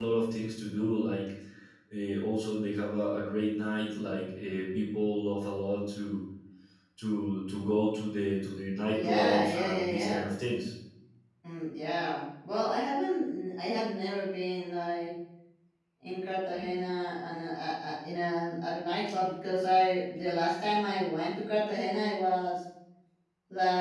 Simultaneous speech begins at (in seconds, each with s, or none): 8.9 s